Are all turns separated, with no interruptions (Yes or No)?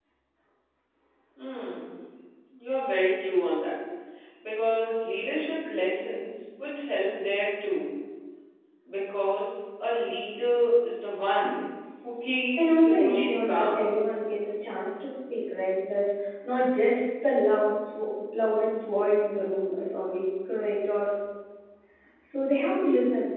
No